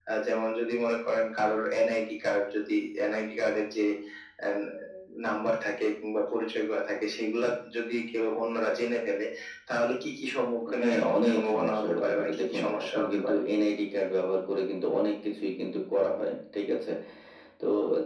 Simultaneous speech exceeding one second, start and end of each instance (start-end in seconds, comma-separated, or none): 10.8-13.3